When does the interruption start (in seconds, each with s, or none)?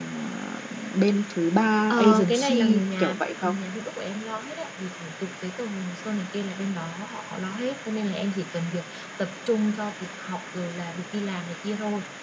1.9 s